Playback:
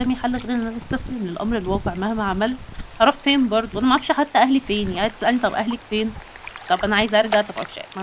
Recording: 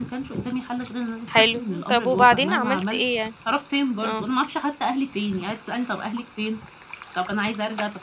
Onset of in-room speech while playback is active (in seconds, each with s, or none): 1.3 s